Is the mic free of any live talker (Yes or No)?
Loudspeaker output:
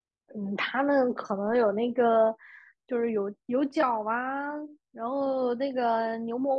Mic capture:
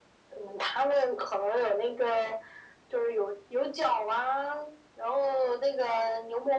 Yes